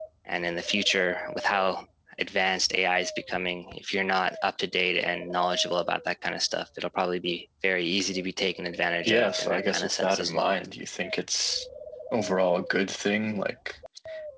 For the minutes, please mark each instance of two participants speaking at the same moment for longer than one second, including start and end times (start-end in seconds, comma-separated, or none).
9.0-10.6